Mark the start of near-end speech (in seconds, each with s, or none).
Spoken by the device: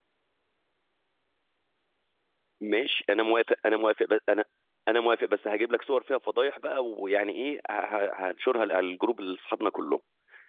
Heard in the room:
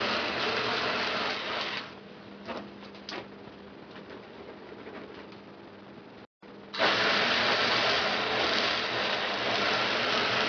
none